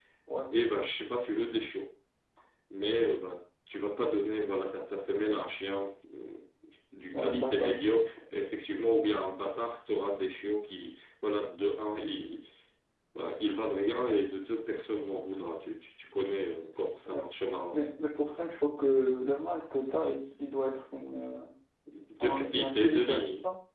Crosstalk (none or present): present